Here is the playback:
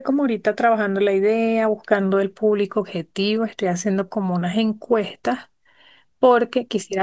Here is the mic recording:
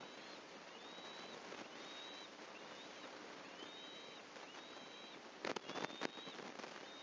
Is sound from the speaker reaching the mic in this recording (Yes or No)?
No